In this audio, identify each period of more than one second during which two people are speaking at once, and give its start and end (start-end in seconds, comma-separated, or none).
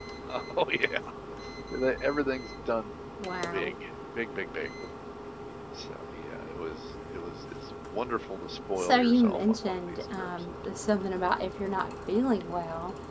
8.8-10.3